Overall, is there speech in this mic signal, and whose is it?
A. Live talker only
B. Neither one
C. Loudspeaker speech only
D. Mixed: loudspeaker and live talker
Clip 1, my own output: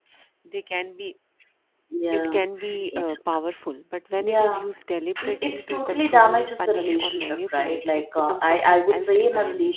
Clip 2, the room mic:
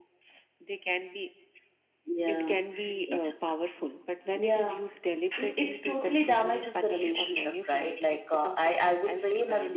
C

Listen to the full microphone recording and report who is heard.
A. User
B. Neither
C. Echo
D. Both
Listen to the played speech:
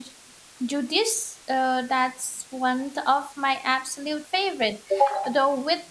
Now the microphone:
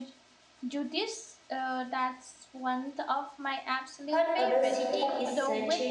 D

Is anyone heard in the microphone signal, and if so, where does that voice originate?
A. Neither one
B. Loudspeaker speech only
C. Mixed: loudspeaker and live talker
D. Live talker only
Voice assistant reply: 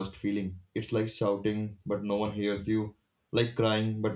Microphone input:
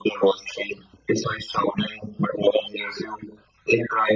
B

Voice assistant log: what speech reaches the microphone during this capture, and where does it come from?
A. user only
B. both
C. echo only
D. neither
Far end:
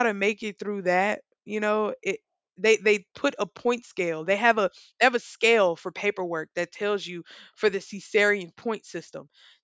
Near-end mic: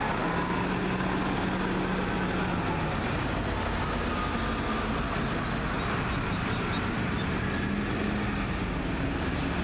D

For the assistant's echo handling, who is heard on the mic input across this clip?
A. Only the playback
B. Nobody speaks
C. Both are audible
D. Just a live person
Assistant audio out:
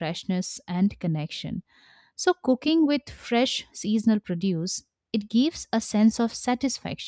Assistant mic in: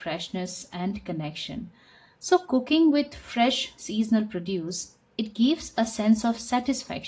A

